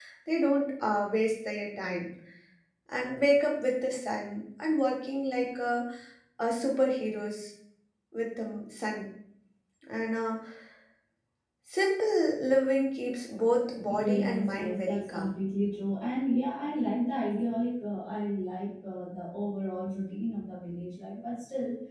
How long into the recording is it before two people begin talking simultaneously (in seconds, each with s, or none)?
13.8 s